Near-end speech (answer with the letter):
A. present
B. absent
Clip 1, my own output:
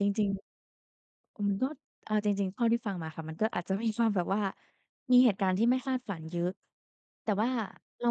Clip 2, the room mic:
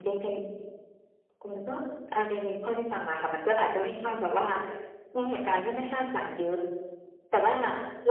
B